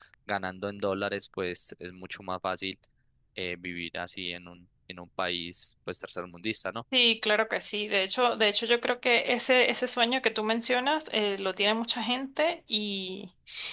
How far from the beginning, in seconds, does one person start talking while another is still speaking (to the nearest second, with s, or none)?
none